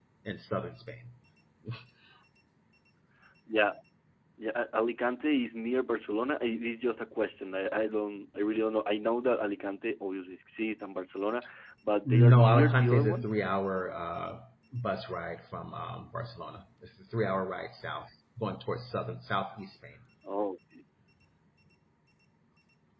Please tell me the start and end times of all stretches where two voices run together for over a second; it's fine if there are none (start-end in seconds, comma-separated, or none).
12.1-13.2